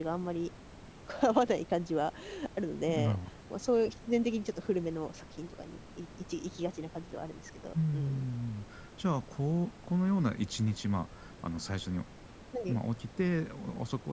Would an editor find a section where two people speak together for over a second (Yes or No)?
No